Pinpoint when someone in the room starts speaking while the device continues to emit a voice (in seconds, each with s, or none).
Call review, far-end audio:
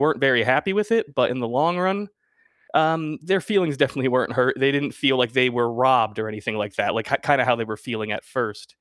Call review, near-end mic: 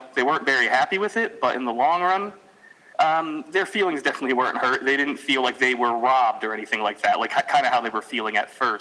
none